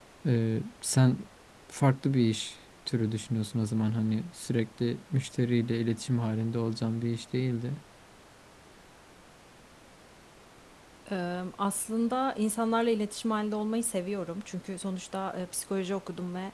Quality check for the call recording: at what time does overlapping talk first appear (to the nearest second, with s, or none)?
none